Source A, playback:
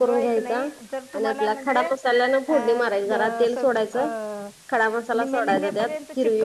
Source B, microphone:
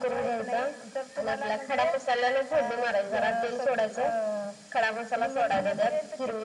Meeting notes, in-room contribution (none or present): none